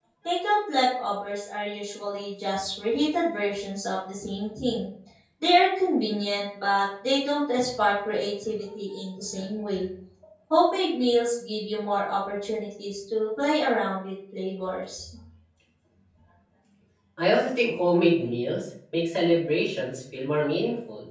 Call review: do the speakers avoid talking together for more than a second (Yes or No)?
Yes